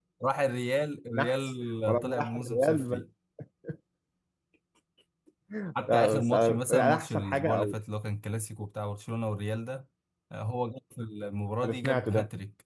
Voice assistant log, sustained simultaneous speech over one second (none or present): present